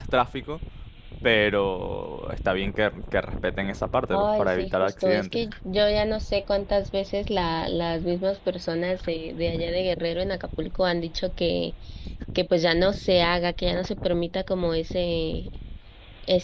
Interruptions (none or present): present